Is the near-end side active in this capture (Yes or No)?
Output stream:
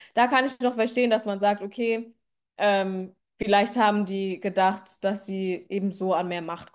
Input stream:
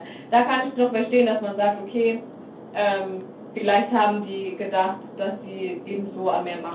No